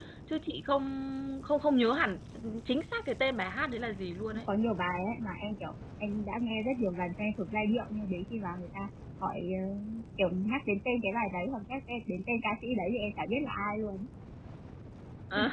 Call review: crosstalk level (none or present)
none